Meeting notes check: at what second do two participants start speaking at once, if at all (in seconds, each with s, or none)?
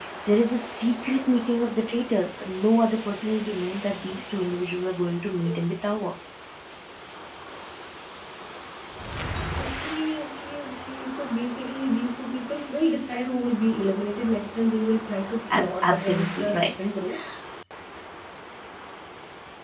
15.5 s